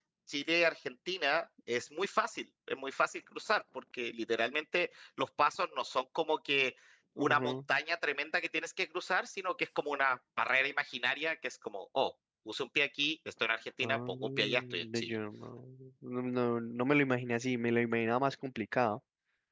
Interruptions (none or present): present